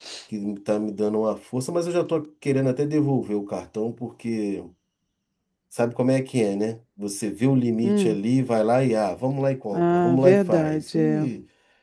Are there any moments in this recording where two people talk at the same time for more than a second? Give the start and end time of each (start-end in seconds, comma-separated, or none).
9.7-11.2